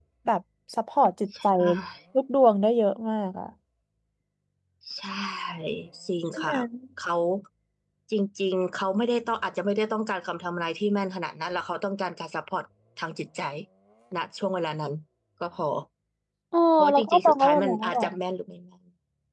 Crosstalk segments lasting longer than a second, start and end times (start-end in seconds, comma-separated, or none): 16.8-18.1